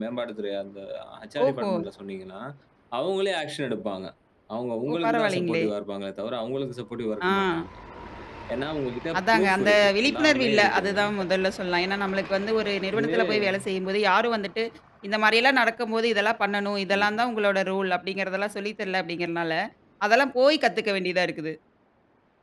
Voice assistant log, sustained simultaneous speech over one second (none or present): present